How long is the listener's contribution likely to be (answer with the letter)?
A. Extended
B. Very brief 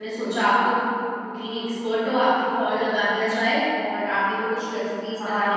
A